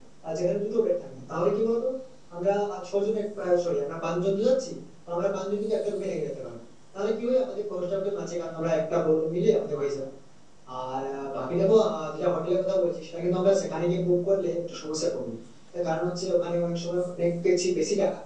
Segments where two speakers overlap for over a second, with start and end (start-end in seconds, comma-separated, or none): none